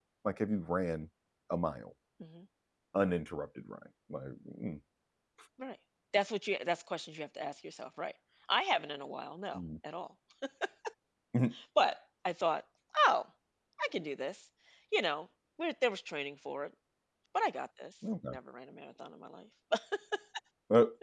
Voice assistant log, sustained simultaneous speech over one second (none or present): none